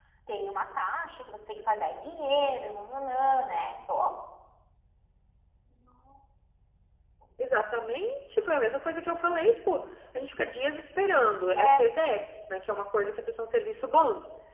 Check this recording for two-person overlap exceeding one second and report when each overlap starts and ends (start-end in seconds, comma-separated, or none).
none